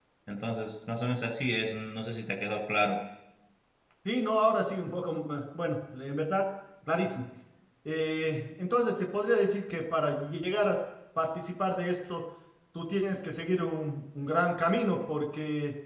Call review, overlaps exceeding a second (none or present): none